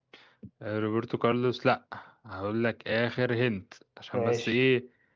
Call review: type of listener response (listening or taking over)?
listening